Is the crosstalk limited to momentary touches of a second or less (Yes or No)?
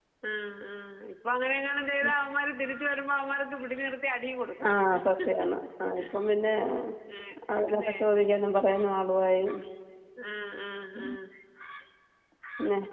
Yes